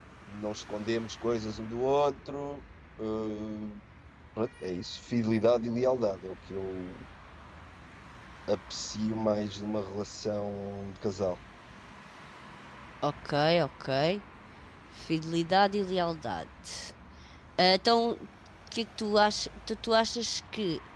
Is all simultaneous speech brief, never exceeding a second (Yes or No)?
Yes